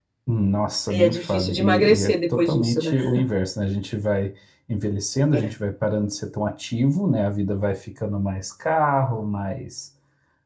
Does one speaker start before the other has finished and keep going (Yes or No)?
Yes